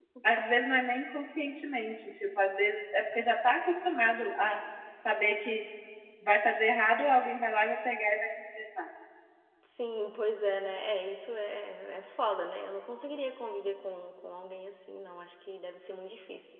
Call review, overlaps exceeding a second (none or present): none